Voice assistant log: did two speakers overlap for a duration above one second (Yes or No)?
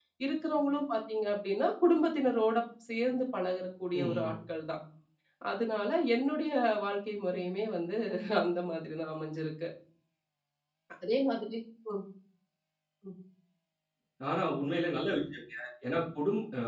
No